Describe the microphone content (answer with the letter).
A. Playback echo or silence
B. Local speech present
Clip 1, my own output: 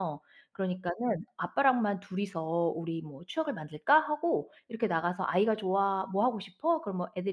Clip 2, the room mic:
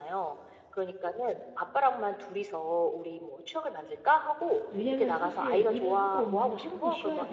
B